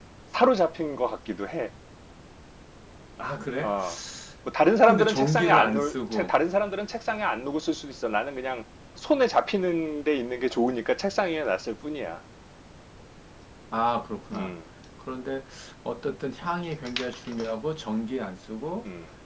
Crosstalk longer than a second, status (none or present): present